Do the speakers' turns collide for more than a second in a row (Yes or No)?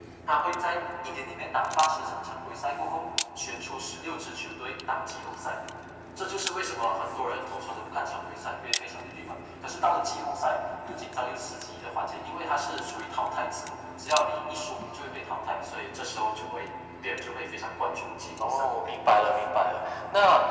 No